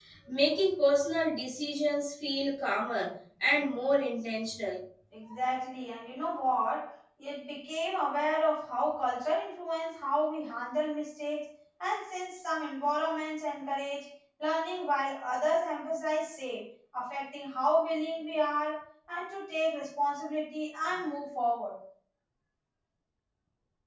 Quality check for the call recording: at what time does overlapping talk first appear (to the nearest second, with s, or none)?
none